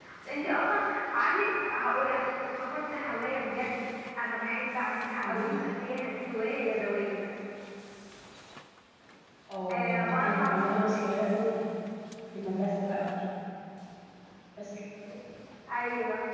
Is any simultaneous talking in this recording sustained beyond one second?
Yes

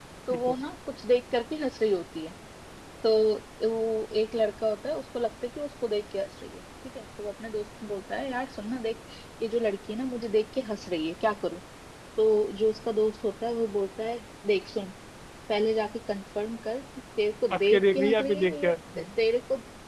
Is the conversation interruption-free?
No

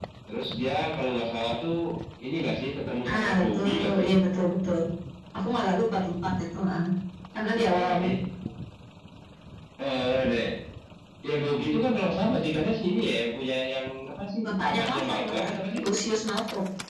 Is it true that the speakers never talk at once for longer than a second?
No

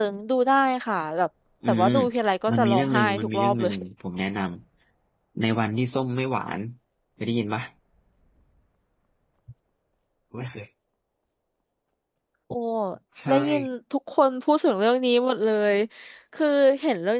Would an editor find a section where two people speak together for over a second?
Yes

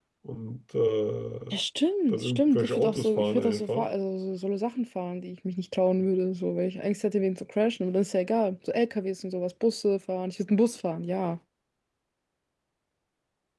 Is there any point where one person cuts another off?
Yes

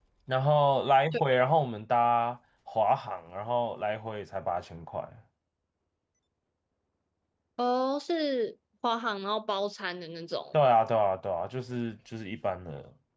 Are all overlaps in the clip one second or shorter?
Yes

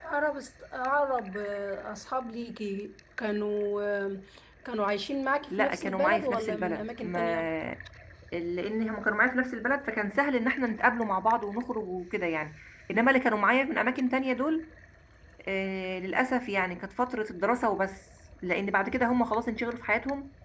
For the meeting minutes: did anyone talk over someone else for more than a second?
Yes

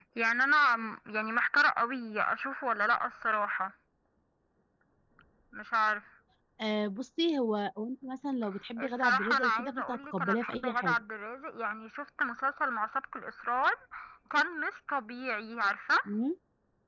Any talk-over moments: Yes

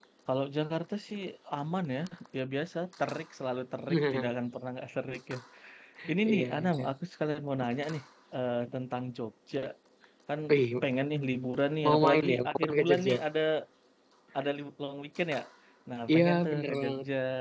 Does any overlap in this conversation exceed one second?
Yes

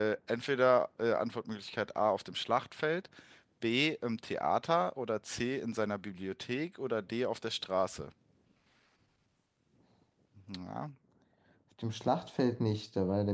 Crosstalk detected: No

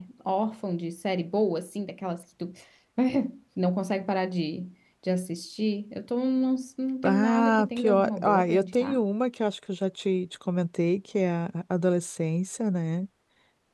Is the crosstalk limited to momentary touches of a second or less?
No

